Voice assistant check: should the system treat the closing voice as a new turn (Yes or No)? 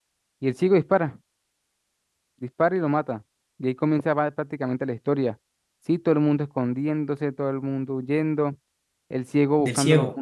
No